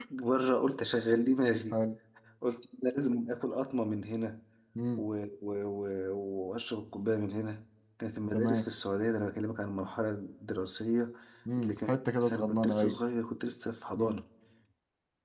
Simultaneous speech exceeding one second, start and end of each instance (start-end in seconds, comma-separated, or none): 11.6-12.9